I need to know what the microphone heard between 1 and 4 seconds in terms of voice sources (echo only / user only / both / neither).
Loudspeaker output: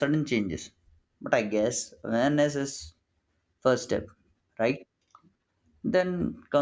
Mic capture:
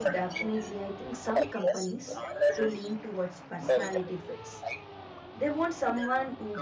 both